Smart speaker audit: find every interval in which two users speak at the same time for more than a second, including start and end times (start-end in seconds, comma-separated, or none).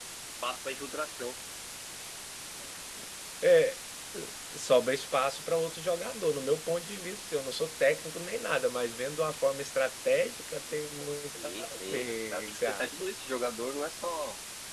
11.4-13.0